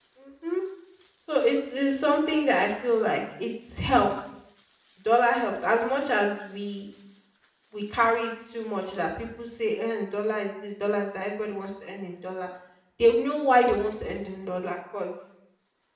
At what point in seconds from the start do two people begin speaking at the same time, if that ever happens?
none

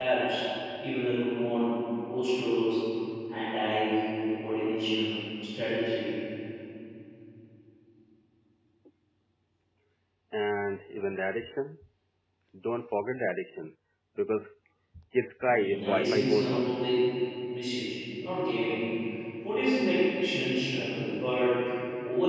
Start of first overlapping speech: 15.4 s

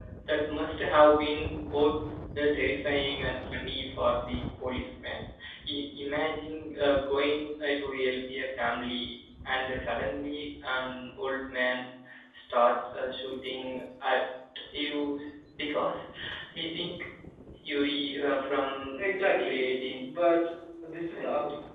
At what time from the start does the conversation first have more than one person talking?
19.0 s

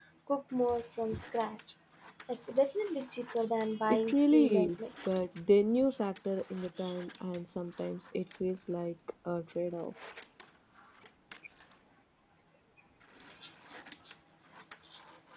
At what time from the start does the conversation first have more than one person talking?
3.8 s

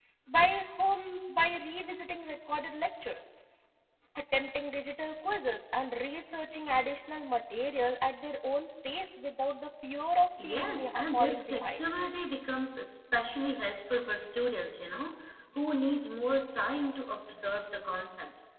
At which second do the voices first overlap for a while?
10.4 s

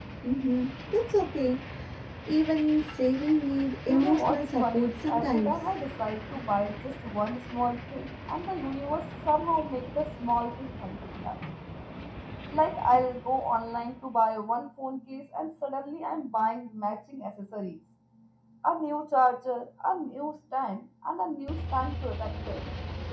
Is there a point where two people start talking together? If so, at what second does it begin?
3.9 s

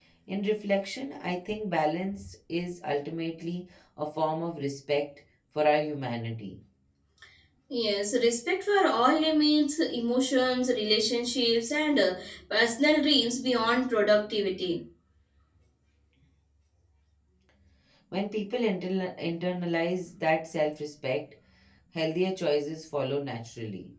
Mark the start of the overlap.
none

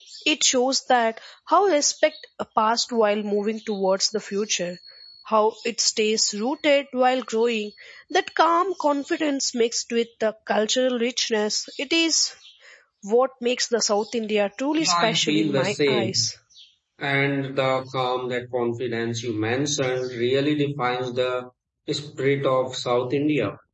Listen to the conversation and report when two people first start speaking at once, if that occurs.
14.8 s

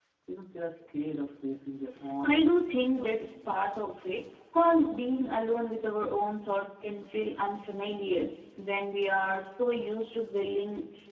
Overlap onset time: 2.2 s

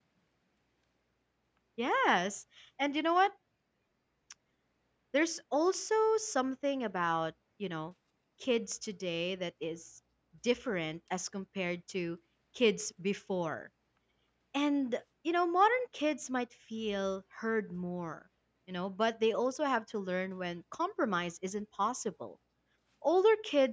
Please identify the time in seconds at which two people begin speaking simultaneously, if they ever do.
none

